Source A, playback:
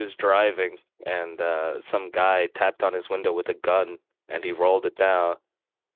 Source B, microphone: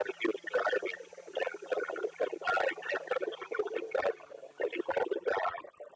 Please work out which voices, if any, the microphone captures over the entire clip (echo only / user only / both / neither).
echo only